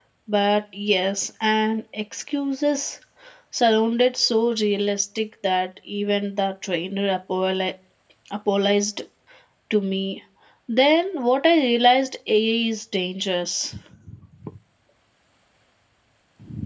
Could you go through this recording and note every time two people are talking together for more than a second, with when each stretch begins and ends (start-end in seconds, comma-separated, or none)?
none